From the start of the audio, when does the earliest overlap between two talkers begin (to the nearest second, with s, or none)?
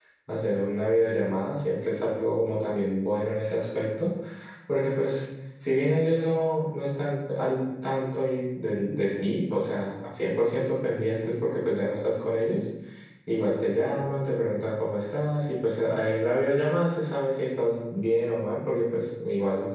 none